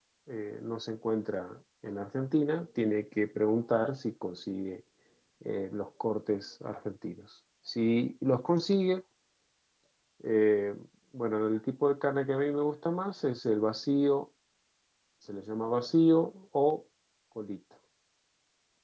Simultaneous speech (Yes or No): No